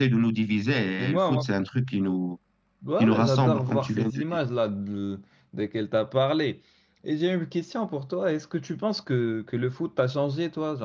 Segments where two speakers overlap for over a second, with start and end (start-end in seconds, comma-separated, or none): 3.0-4.2